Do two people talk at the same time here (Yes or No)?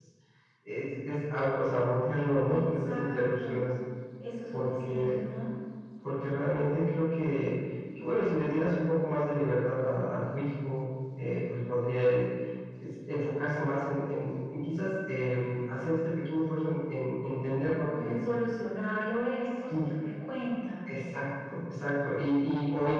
Yes